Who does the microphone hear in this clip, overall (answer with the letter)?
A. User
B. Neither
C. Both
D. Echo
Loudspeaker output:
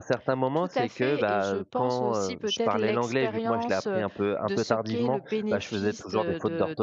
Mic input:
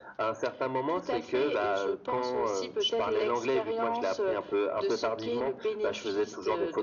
D